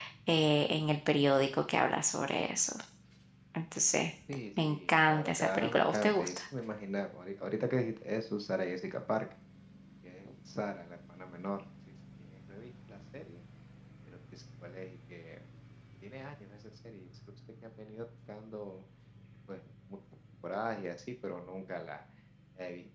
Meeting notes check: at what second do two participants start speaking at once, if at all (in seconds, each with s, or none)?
4.6 s